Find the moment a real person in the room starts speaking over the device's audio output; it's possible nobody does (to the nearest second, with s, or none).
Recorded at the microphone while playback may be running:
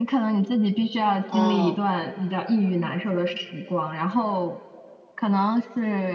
1 s